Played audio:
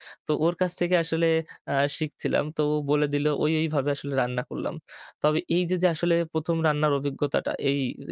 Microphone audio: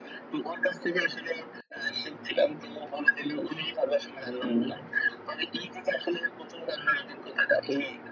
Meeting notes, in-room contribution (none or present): present